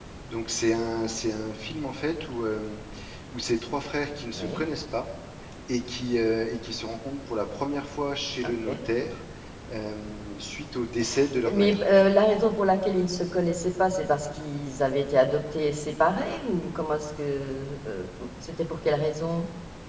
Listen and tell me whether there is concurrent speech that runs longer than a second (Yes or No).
No